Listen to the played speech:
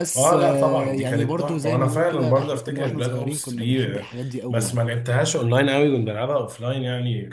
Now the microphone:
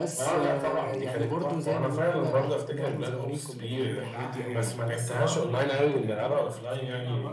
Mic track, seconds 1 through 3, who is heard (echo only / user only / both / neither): echo only